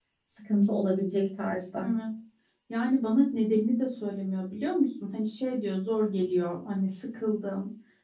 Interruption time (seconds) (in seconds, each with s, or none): none